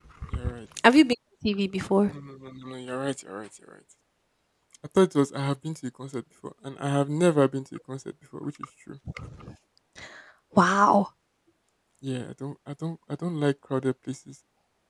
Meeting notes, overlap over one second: none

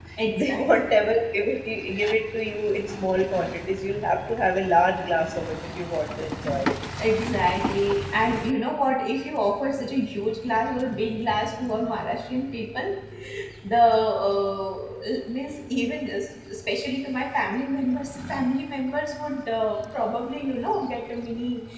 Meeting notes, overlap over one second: none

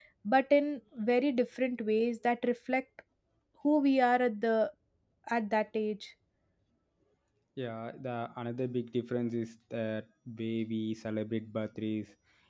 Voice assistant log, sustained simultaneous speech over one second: none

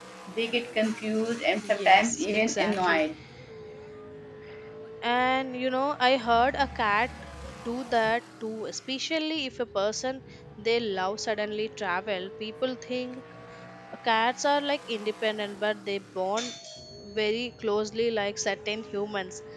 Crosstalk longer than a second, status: present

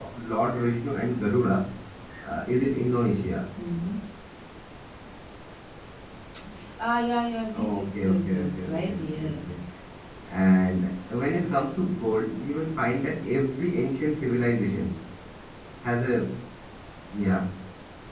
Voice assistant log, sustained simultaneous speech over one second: present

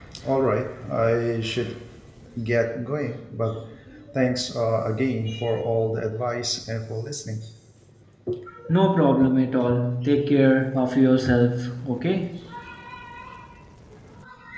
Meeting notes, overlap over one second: none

